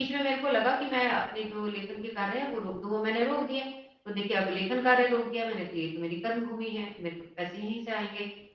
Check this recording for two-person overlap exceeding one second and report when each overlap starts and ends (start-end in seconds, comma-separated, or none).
none